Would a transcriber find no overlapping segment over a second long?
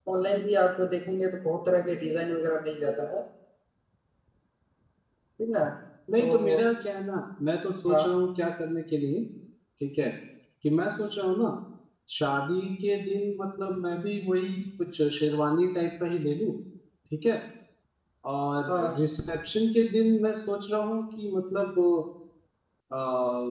Yes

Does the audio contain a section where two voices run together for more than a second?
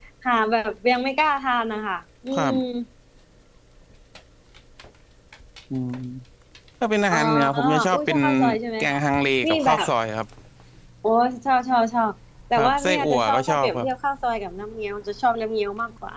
Yes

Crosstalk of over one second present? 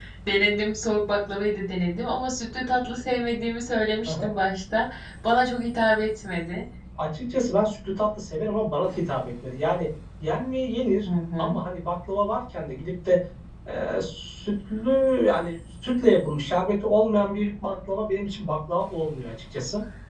No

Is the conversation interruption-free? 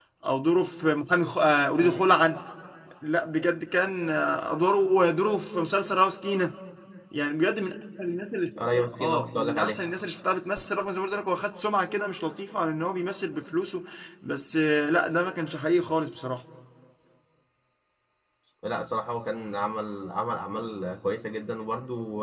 No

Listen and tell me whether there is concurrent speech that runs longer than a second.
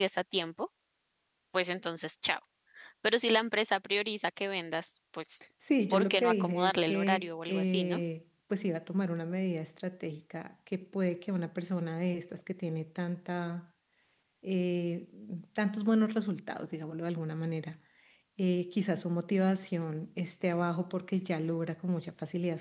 Yes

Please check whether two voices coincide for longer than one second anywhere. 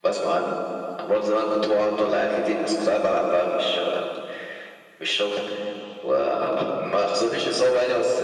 No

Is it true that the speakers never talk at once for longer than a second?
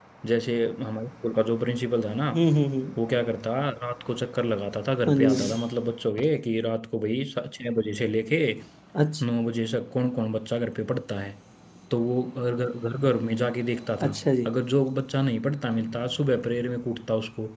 Yes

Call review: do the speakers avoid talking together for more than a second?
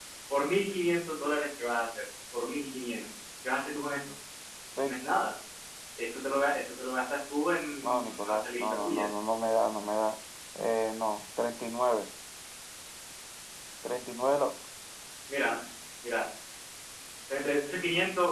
No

